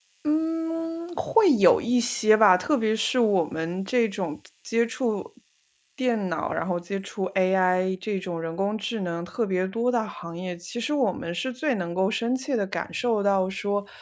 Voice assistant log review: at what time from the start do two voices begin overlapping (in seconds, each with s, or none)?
none